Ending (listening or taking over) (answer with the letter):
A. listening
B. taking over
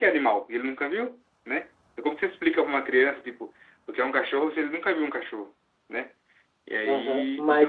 B